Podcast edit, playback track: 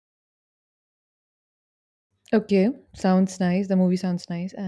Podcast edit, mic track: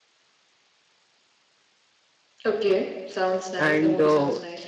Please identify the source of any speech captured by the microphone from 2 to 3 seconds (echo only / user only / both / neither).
echo only